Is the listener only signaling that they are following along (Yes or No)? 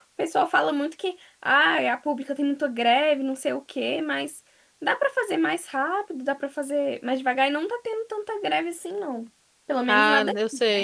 No